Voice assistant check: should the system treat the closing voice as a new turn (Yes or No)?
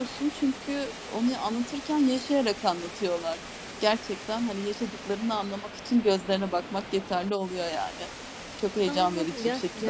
Yes